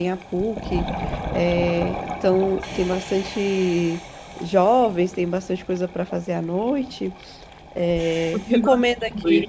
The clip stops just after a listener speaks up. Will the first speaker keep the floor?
No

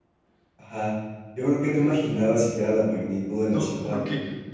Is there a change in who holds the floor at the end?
Yes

